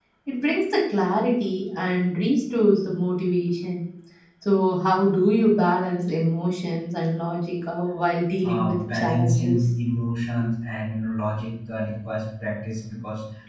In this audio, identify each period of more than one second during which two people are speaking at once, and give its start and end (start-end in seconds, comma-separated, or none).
8.4-9.7